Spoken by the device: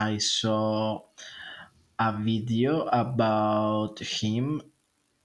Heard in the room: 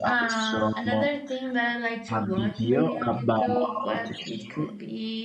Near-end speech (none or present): present